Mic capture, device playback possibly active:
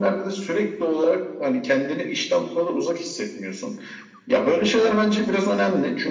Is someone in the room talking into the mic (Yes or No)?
No